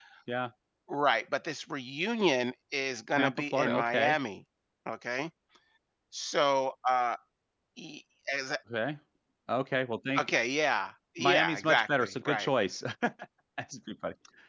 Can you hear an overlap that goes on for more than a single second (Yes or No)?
Yes